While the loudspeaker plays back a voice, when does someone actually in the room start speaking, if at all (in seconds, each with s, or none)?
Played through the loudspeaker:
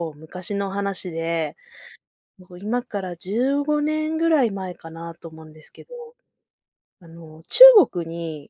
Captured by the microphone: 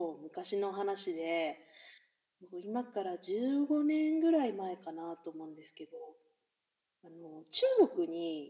none